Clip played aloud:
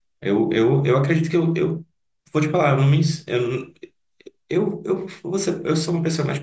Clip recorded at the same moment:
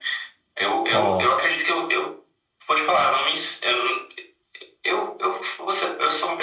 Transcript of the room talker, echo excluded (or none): ó.